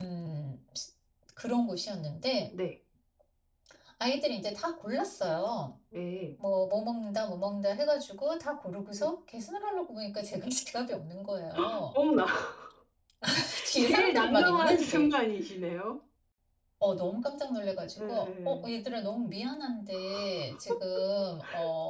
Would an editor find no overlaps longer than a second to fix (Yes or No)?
No